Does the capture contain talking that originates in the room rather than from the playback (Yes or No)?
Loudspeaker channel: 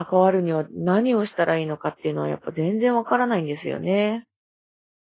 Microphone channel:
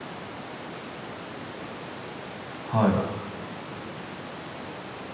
Yes